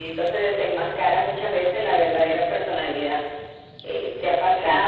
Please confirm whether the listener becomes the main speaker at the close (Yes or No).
No